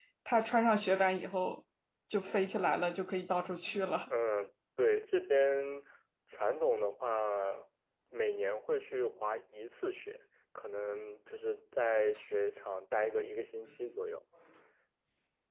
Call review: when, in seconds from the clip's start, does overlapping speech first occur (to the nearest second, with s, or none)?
none